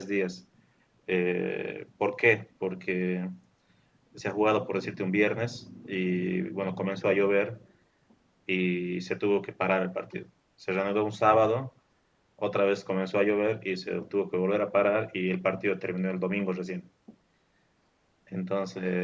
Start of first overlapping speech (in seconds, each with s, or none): none